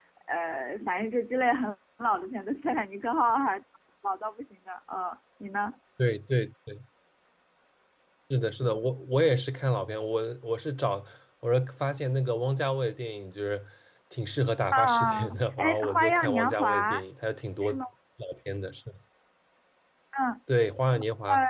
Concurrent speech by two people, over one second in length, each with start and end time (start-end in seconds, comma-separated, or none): 14.7-17.0